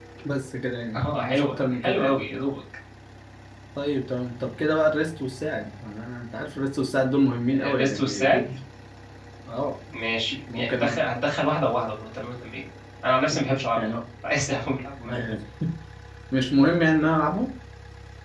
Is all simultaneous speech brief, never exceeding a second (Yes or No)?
No